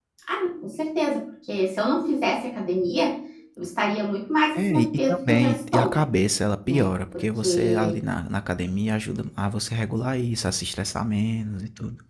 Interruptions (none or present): present